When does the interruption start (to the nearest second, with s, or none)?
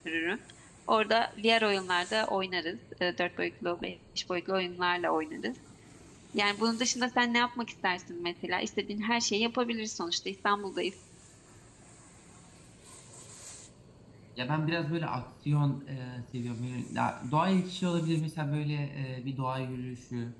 none